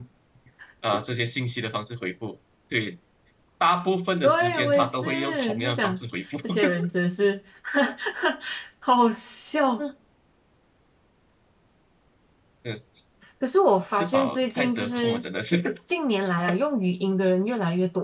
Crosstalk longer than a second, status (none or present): present